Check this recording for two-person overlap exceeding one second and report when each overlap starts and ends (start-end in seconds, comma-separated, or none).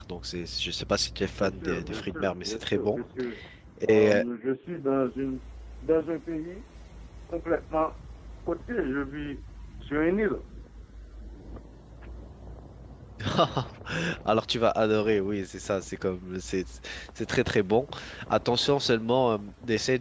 1.4-3.0